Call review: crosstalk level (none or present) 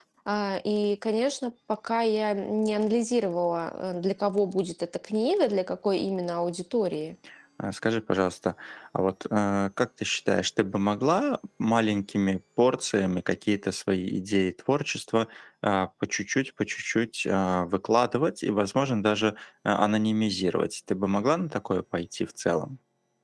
none